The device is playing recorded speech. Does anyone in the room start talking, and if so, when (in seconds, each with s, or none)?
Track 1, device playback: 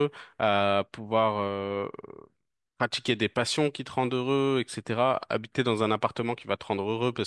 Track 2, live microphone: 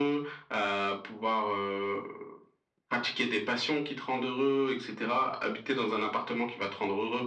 none